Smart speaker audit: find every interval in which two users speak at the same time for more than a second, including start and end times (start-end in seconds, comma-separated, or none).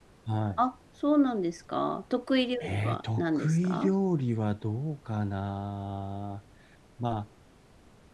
2.6-3.9